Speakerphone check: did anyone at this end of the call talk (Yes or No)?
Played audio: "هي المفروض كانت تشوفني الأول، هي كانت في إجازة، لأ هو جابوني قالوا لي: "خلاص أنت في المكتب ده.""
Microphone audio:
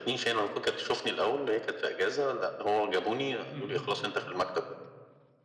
Yes